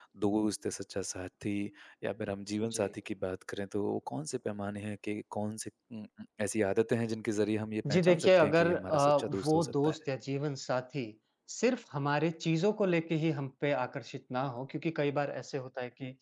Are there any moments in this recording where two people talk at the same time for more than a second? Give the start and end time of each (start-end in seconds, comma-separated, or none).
7.9-10.0